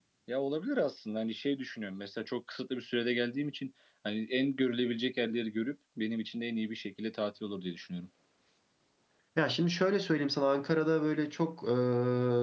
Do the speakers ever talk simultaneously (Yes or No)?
No